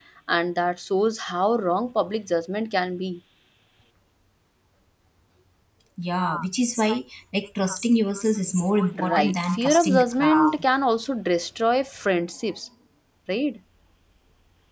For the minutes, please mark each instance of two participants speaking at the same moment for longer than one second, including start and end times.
8.9-10.6

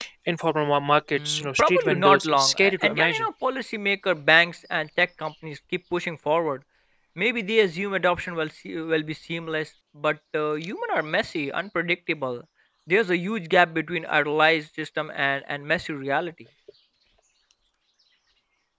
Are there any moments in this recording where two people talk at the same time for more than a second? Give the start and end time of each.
1.1-3.2

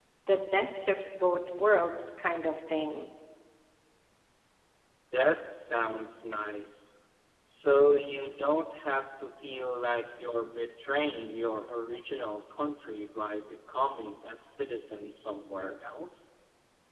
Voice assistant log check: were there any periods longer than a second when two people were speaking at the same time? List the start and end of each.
none

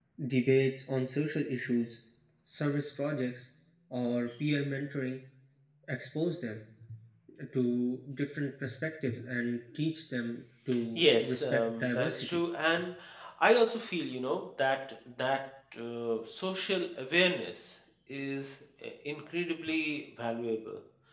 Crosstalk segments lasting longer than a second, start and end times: 11.0-12.4

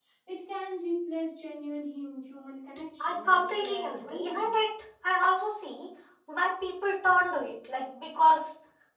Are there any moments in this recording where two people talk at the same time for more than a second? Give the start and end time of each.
3.0-4.5

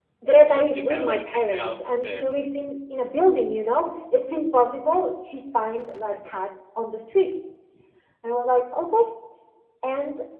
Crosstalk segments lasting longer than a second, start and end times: 0.7-2.2

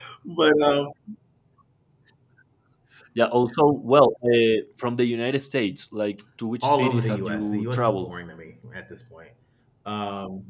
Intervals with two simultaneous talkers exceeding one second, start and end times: 6.6-8.1

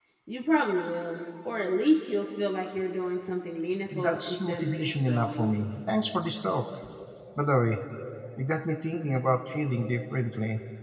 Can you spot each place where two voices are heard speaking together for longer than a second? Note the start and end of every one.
3.9-5.5

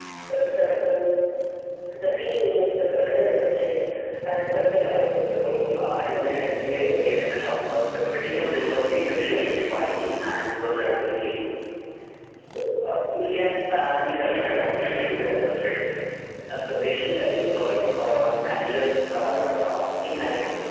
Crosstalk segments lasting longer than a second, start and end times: 4.7-7.1

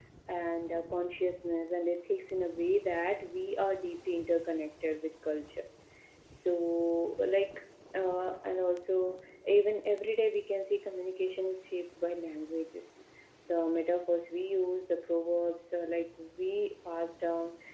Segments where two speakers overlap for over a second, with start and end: none

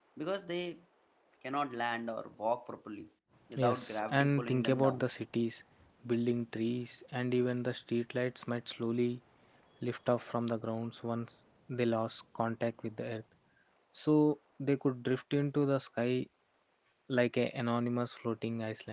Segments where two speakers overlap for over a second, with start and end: 3.6-5.0

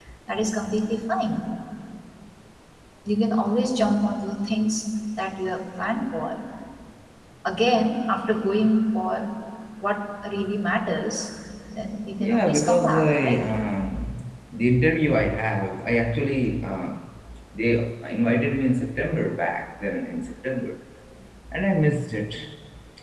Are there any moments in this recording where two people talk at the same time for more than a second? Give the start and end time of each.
12.2-13.5

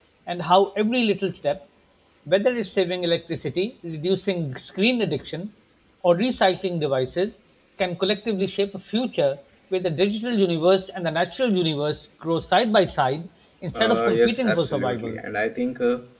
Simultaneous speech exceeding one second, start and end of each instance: 13.7-15.2

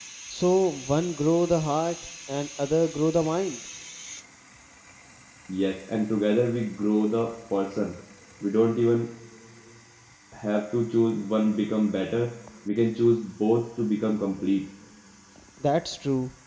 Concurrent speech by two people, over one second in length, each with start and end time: none

